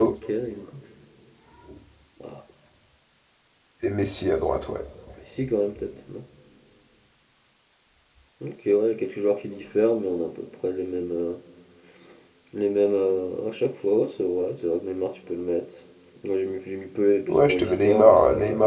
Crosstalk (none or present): present